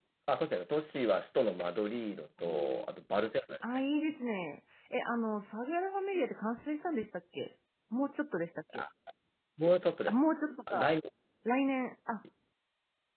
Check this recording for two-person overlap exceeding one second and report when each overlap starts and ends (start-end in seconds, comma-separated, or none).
none